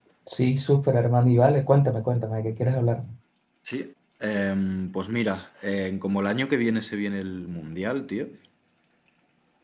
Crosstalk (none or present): none